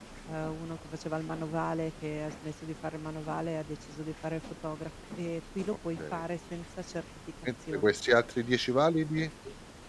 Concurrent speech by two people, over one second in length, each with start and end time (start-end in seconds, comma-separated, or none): none